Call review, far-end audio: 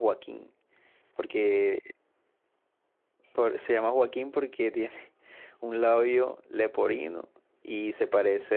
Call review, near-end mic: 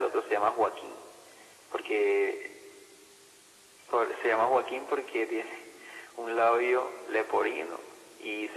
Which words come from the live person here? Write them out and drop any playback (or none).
none